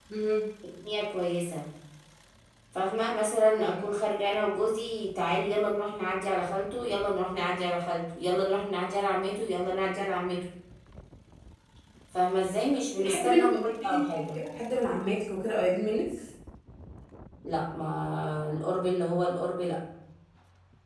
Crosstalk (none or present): present